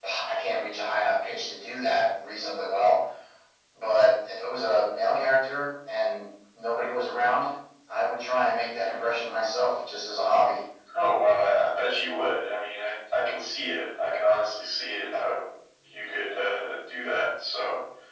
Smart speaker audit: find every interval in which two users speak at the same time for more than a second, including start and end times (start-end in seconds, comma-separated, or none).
none